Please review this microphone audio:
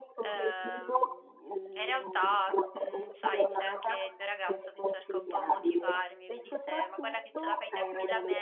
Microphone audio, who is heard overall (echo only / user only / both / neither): both